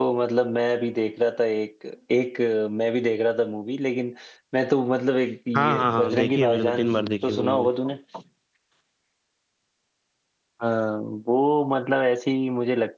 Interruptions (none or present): present